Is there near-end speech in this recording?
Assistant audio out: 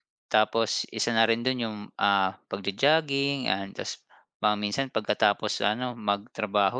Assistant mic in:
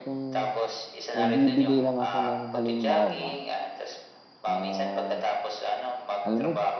Yes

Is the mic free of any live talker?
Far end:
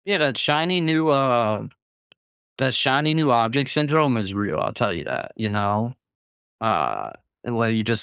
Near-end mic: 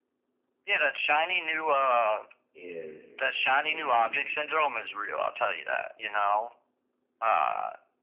No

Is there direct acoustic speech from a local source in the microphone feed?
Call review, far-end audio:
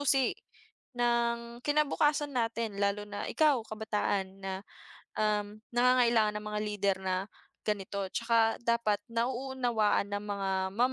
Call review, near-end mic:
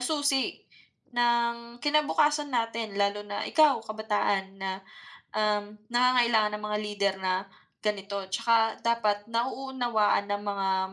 No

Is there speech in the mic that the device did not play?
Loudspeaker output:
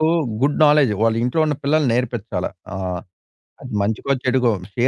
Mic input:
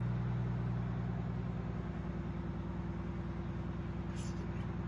No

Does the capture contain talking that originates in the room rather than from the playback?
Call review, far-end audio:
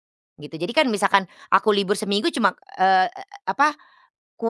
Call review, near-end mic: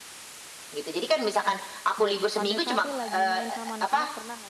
Yes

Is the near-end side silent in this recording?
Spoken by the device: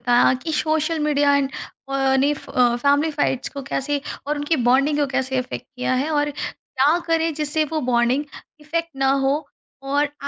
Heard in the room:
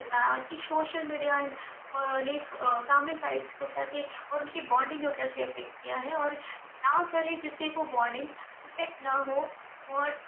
Yes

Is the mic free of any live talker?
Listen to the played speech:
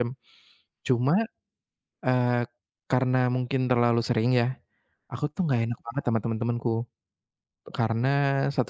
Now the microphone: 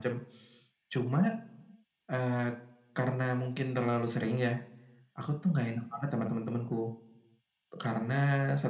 Yes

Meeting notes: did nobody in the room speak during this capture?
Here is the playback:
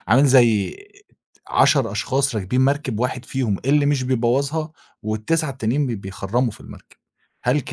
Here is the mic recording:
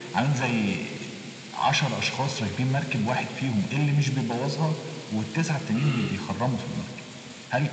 No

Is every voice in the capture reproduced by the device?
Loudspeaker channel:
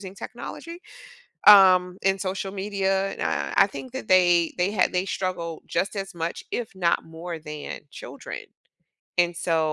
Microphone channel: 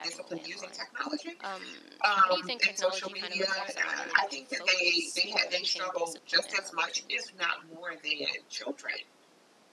No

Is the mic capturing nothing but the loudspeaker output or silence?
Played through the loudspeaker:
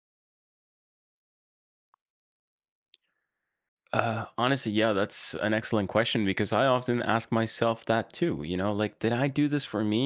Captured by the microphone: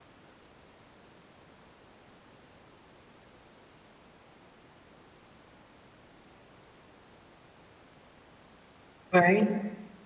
No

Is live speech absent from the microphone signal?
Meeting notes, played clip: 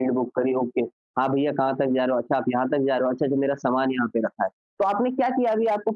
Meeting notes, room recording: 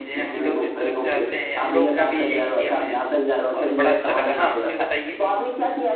No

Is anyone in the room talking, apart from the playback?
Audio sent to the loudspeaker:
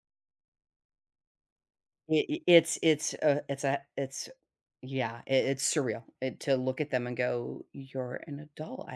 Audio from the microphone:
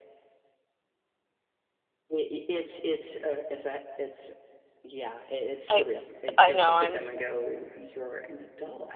Yes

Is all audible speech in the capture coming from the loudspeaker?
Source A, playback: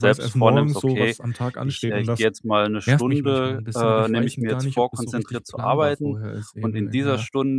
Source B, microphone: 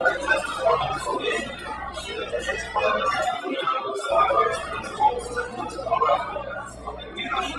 Yes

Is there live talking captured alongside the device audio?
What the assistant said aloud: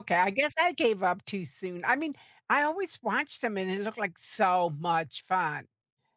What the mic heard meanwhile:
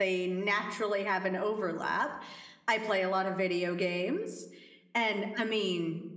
Yes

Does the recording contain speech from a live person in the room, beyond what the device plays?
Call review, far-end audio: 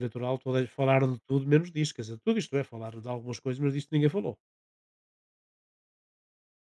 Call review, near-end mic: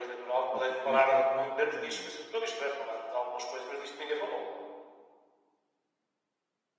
Yes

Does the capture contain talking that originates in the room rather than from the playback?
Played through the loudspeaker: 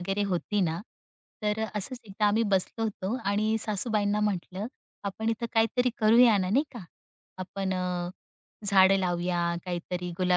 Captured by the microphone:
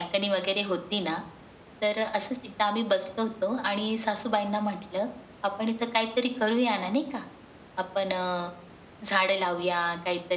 No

